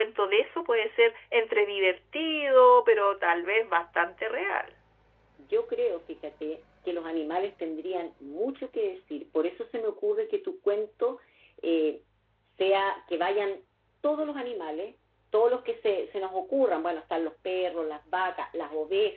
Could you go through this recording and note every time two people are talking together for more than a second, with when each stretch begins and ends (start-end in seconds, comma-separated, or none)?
none